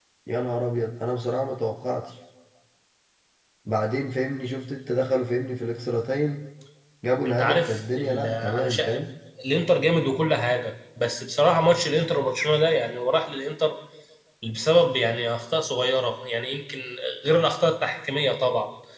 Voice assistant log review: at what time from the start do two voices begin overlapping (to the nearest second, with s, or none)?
7 s